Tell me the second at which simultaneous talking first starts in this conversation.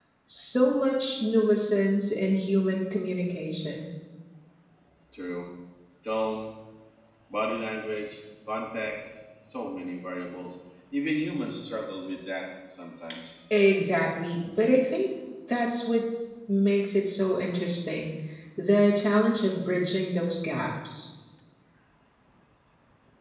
none

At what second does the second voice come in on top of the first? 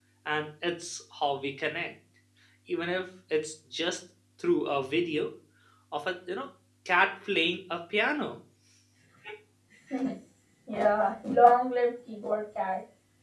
none

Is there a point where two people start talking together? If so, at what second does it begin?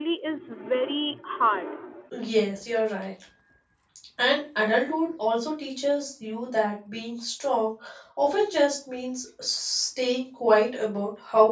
none

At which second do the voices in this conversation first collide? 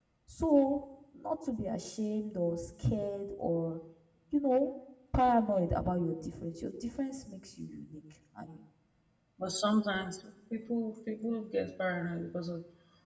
none

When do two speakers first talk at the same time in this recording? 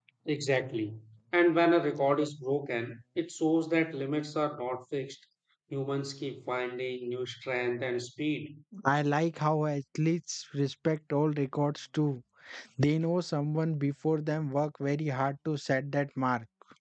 none

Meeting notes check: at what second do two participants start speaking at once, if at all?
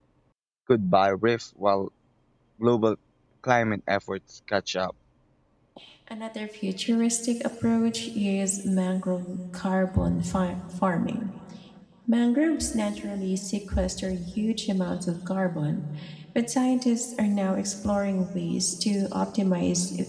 none

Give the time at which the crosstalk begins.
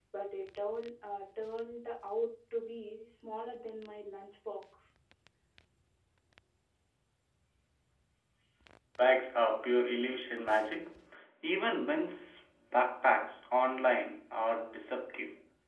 none

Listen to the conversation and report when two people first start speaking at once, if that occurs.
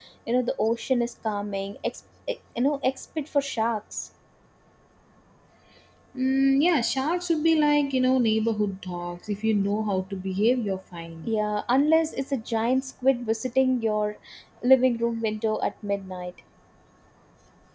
none

